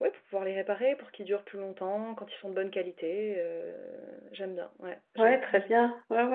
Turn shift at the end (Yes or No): Yes